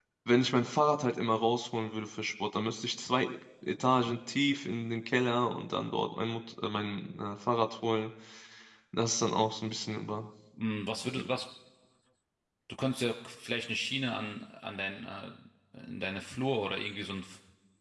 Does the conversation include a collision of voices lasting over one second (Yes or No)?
No